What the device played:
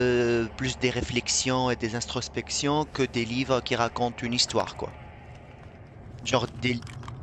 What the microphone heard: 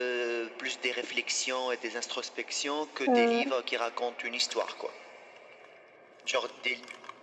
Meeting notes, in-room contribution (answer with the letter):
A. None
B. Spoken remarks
B